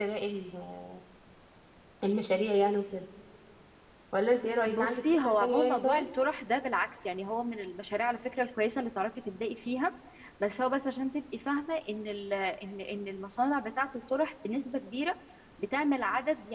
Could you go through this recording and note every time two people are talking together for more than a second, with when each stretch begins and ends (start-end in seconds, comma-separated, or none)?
4.6-6.0